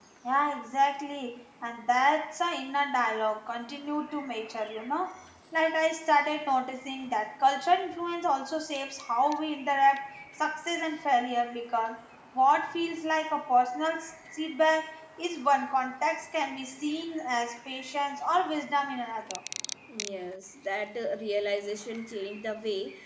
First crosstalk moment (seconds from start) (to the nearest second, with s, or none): none